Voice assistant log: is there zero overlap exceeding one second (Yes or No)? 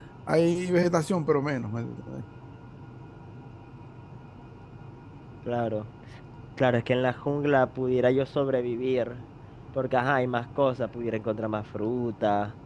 Yes